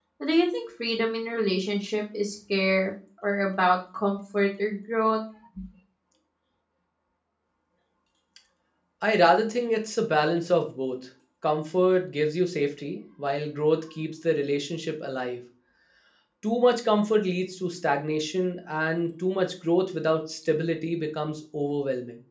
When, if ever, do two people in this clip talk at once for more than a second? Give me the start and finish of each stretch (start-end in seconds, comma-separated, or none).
none